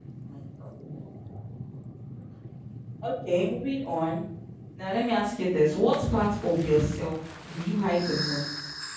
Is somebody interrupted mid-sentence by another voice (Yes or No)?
No